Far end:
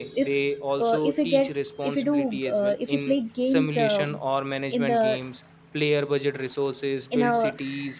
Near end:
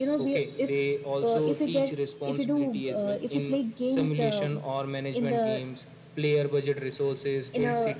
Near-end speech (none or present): none